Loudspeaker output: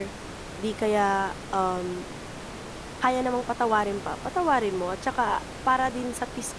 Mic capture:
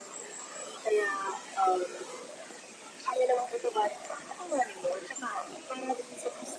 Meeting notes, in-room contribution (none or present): none